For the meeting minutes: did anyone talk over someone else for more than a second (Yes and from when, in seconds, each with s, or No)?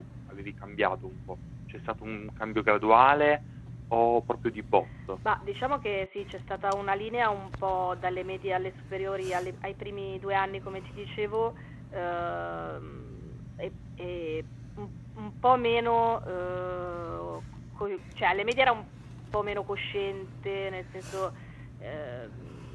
No